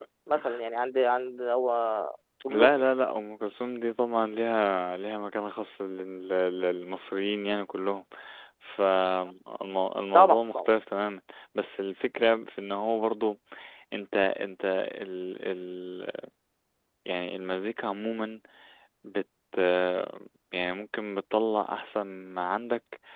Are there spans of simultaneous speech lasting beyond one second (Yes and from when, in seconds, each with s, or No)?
No